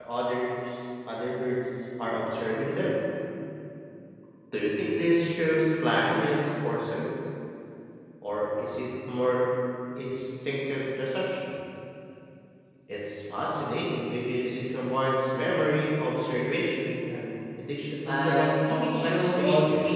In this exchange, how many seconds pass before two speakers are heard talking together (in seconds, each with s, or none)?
18.1 s